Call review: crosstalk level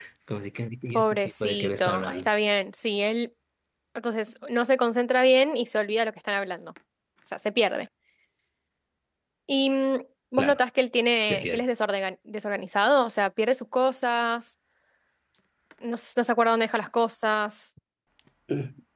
present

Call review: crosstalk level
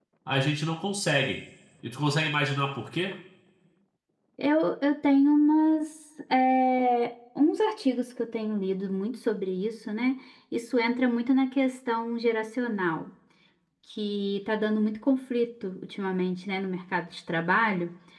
none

